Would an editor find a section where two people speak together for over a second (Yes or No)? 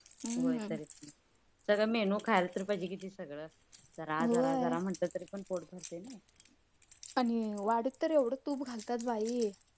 No